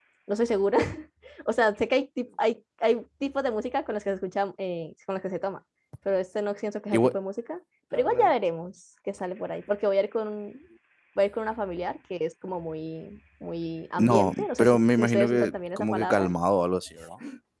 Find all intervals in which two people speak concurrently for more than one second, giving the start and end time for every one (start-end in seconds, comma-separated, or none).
14.0-16.3